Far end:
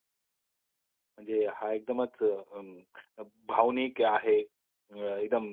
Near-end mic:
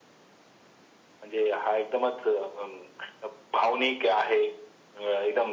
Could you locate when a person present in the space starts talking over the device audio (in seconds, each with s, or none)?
none